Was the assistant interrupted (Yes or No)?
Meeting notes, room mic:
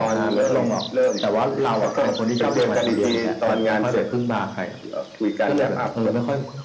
No